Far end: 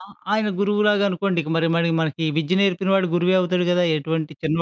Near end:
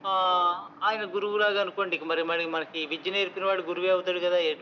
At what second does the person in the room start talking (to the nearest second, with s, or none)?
none